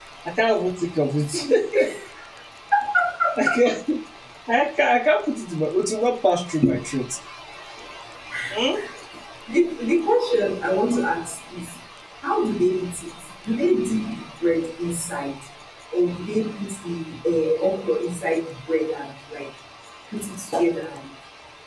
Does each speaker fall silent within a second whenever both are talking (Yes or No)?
Yes